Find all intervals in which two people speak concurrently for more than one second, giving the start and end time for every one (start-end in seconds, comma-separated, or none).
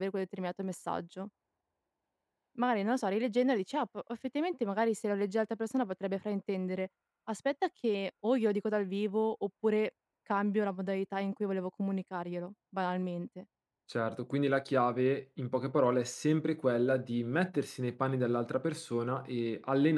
none